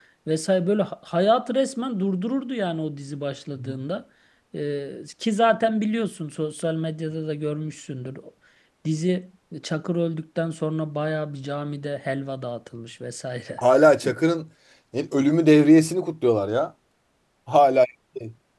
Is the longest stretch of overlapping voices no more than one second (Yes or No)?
Yes